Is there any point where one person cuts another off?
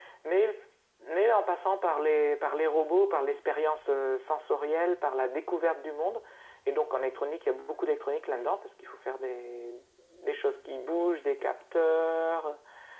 No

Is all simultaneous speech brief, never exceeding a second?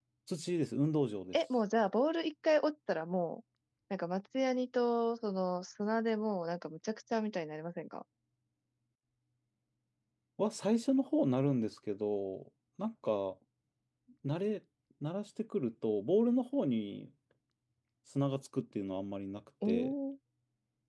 Yes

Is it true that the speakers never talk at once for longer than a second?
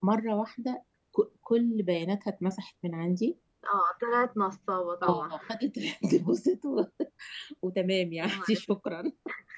Yes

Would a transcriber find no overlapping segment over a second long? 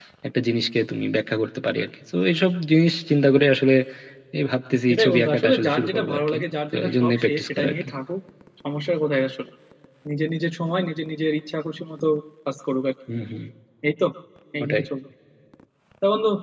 No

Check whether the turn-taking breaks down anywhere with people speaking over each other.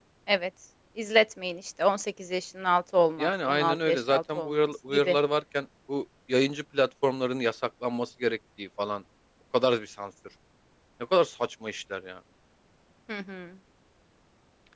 Yes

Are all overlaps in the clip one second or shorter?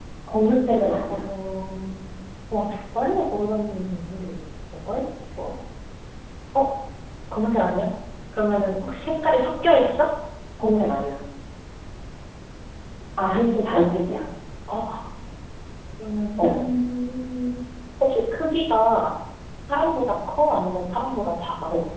Yes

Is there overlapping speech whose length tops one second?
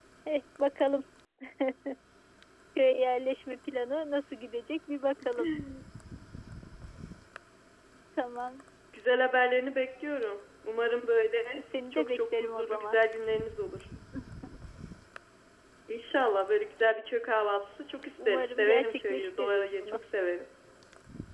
Yes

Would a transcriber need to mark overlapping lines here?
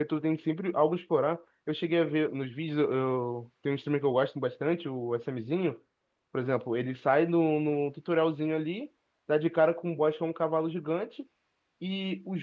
No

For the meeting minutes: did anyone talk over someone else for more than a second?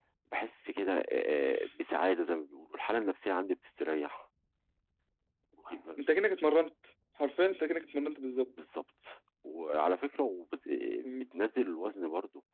No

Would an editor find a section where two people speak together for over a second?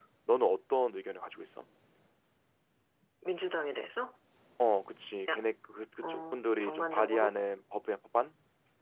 Yes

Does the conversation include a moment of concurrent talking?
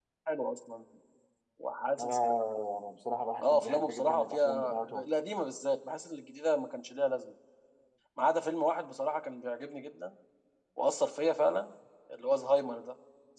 Yes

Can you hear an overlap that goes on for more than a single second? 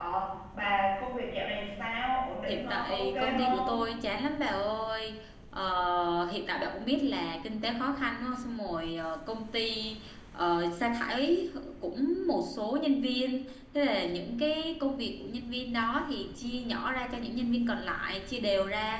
Yes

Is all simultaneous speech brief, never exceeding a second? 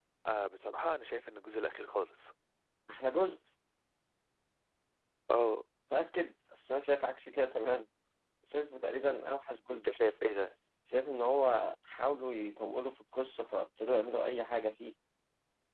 Yes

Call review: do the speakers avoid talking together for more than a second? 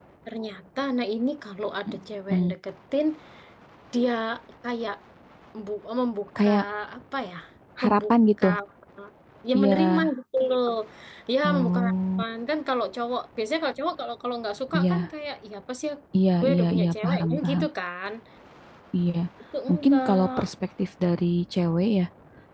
No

